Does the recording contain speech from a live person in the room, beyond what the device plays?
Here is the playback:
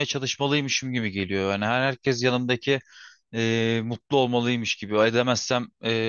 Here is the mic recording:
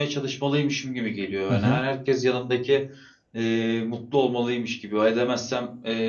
Yes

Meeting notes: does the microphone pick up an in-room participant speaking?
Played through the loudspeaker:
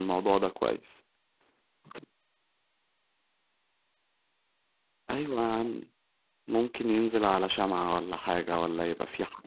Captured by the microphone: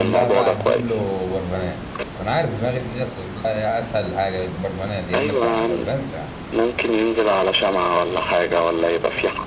Yes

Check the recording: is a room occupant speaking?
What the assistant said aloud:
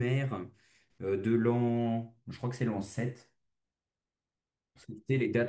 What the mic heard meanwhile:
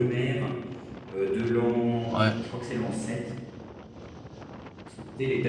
Yes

